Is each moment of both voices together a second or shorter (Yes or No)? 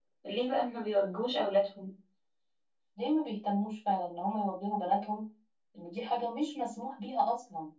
Yes